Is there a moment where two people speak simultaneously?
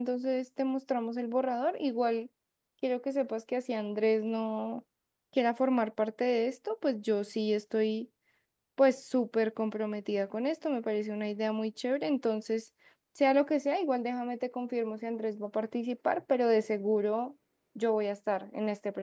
No

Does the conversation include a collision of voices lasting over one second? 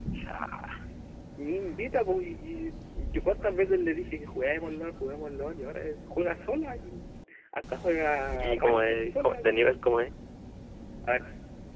Yes, from 8.4 s

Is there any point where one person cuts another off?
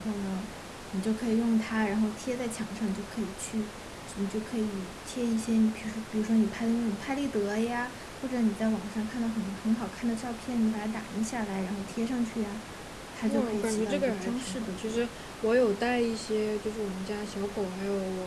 Yes, from 13.3 s

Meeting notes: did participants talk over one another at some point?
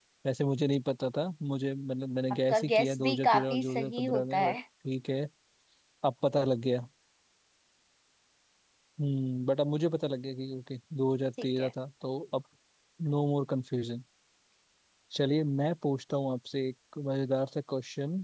Yes, from 2.5 s

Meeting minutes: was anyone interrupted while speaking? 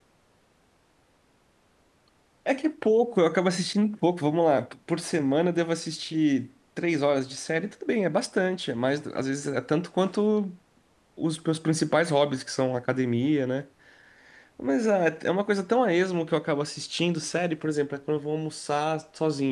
No

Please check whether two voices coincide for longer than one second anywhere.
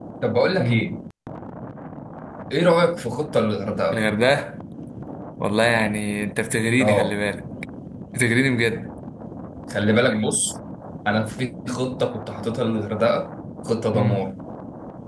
No

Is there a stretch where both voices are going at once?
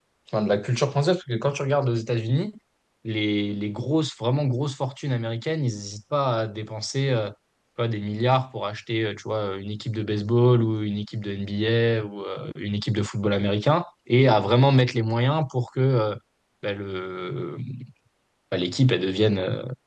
No

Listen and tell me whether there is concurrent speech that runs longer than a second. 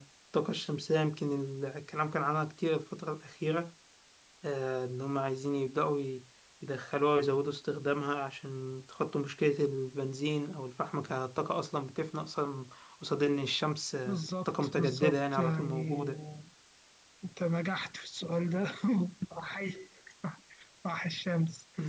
Yes, from 14.1 s

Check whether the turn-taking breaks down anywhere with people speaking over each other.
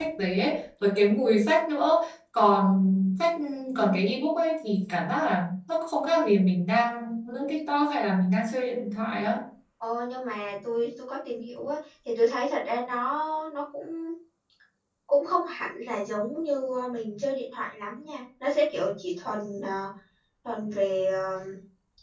No

